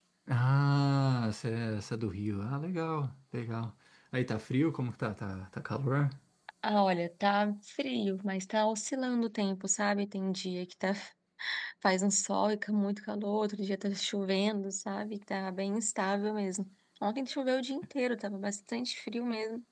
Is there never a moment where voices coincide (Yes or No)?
Yes